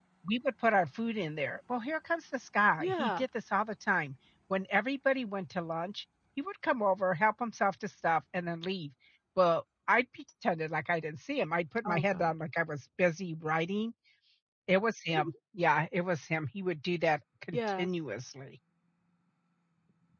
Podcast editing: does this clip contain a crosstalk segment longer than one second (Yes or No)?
No